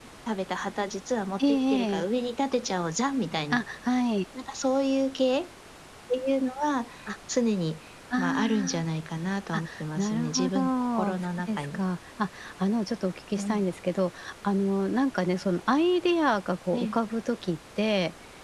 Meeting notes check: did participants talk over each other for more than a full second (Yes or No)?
Yes